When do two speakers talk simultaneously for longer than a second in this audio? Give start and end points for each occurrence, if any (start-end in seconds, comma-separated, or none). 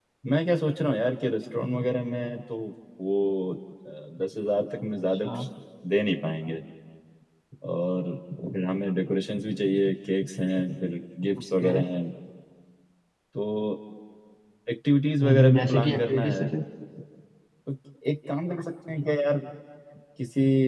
15.2-16.5